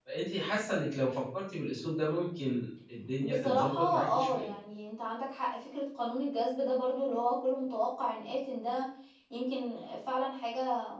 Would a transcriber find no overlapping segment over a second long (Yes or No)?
No